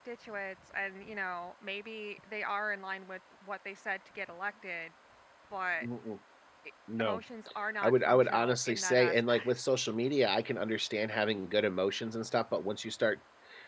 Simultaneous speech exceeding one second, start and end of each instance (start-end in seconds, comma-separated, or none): 7.8-9.6